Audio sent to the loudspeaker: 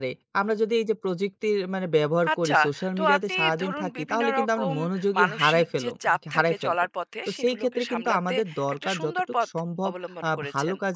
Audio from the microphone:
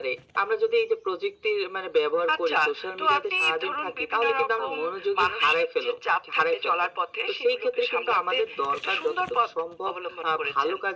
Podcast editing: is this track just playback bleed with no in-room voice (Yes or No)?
Yes